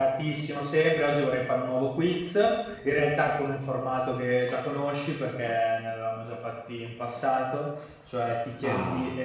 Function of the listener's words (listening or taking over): listening